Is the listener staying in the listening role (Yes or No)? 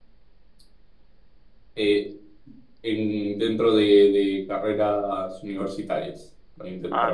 No